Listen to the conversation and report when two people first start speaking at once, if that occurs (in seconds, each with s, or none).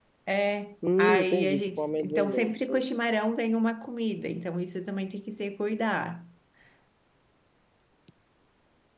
1.0 s